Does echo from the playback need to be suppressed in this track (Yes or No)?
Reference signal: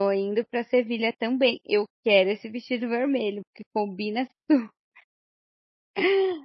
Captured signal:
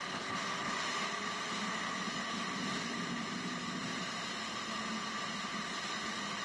No